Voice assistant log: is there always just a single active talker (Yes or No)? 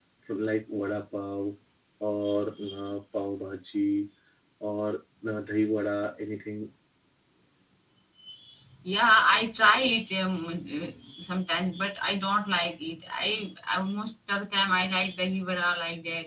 Yes